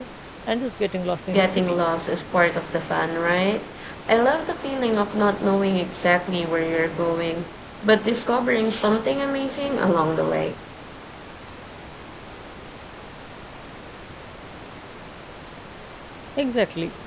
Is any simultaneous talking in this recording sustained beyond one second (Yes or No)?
No